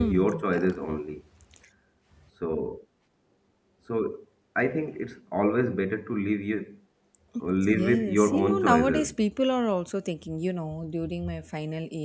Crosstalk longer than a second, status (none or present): present